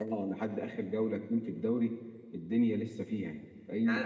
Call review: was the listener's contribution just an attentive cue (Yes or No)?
No